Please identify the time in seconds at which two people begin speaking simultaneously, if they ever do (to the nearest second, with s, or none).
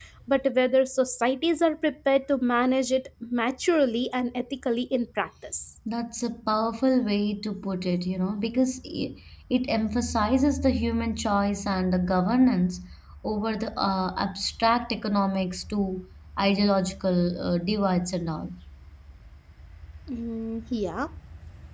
none